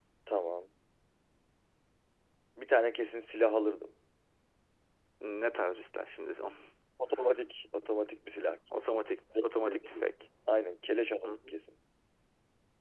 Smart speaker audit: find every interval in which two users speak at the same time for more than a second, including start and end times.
none

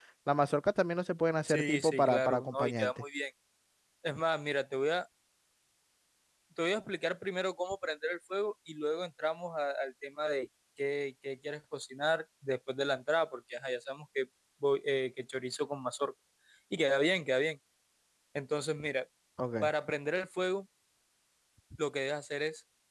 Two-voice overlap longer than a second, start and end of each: 1.5-2.9

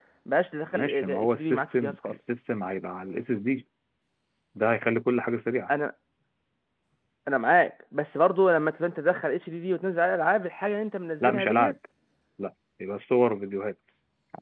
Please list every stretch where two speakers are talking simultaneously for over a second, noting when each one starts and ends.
0.7-2.2

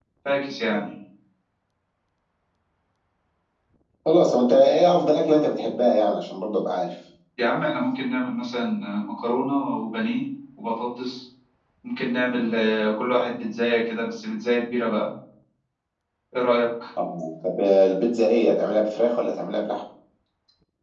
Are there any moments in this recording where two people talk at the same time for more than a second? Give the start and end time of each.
none

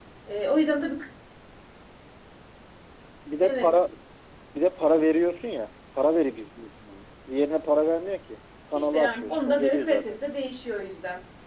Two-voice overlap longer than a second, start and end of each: 8.8-10.2

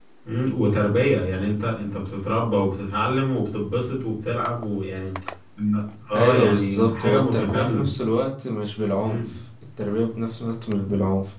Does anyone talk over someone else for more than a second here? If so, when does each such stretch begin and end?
6.2-7.9

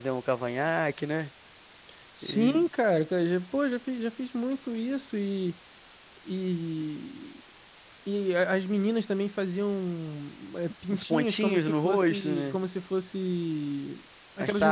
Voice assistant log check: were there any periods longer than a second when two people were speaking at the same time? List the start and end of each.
10.9-12.6

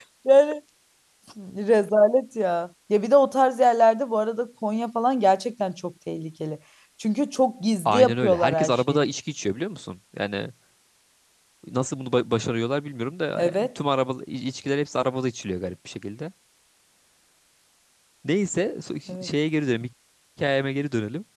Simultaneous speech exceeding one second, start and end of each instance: 7.8-9.1

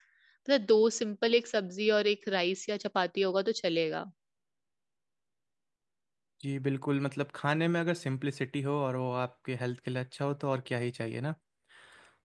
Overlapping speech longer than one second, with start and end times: none

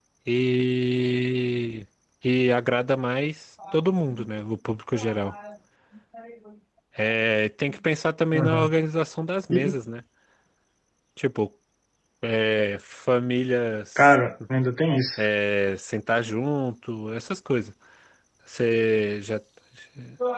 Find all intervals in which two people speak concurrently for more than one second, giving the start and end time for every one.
none

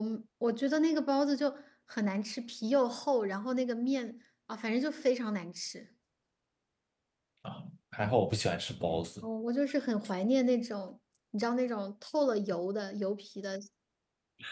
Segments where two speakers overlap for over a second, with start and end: none

